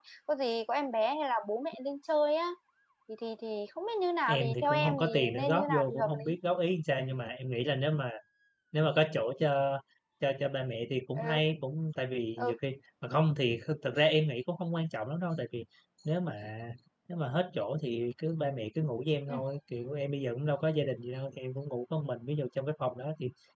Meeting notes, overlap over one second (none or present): present